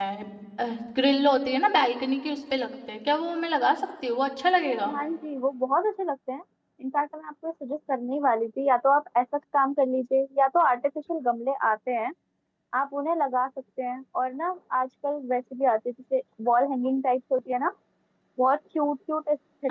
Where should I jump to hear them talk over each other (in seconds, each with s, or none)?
none